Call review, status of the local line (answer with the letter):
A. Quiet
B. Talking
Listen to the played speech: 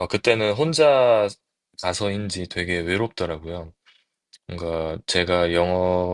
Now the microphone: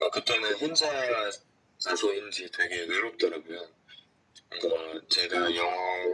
A